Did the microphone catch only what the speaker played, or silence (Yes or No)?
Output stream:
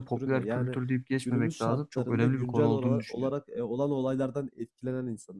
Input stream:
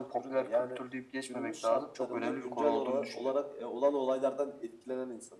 Yes